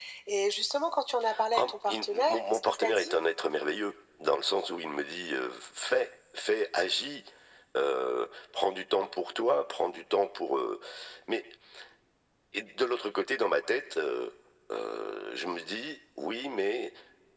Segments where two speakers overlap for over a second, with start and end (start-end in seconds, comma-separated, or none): 1.6-3.1